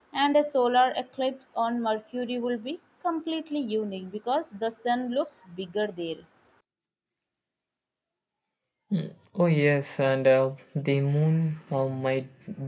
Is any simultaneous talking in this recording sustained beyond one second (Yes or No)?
No